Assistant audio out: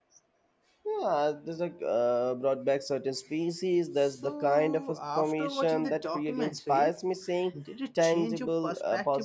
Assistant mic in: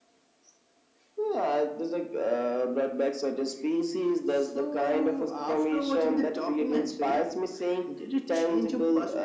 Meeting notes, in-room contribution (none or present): none